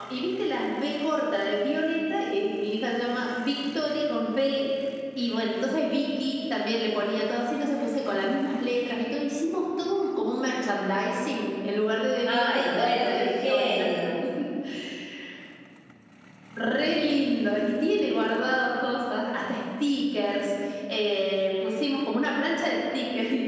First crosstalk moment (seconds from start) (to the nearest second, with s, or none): 12 s